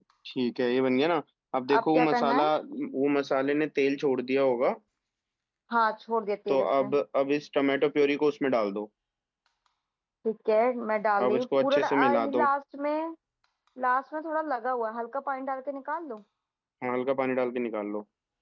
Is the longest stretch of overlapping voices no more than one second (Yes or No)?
No